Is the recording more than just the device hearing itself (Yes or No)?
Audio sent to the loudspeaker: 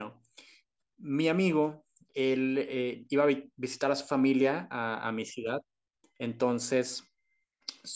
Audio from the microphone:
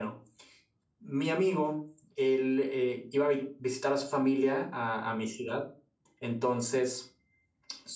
No